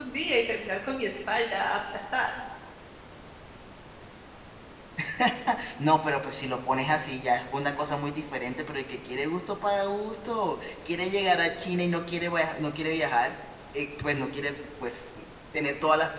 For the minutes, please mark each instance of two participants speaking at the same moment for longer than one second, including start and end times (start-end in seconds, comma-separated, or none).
none